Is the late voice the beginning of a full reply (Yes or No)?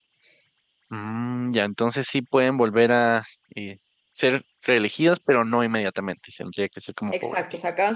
Yes